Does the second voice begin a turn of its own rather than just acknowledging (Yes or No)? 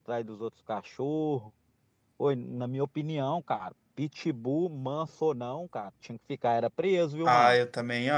Yes